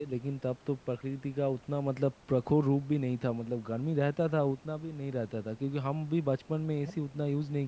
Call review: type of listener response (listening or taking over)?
listening